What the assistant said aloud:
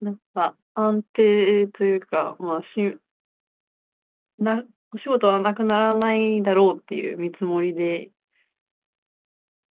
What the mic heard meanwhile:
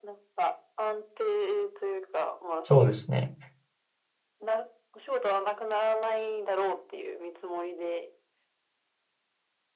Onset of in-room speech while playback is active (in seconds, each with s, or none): 2.6 s